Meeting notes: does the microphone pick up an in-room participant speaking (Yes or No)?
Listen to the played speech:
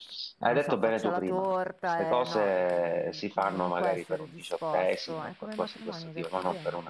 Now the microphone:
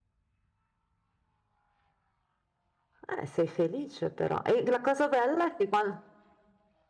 Yes